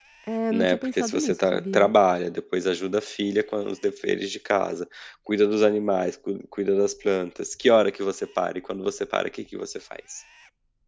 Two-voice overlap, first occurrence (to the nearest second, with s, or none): 1 s